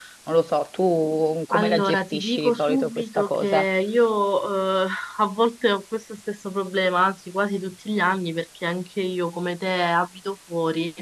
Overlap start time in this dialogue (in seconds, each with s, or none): 1.5 s